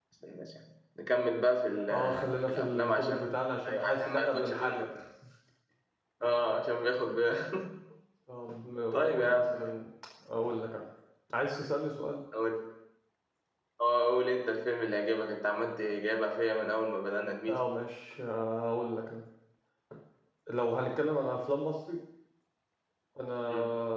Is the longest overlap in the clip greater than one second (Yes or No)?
Yes